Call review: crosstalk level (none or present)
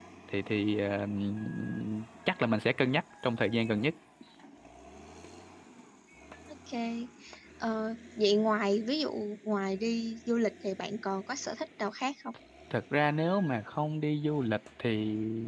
none